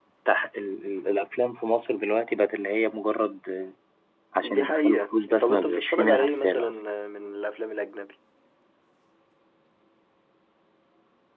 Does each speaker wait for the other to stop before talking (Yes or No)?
No